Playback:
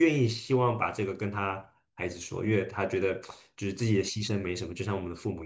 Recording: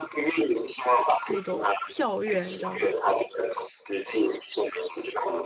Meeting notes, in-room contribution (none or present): present